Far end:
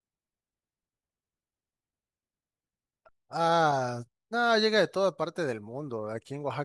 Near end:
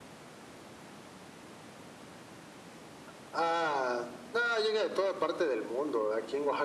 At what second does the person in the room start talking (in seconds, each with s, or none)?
none